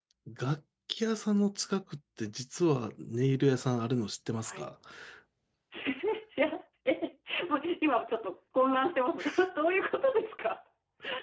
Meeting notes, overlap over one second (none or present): none